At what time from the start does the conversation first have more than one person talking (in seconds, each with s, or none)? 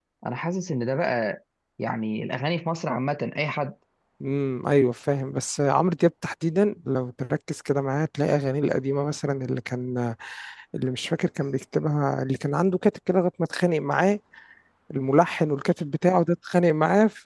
none